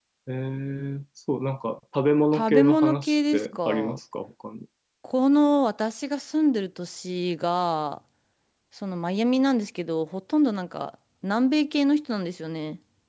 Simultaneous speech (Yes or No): Yes